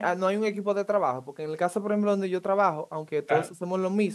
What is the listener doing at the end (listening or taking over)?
listening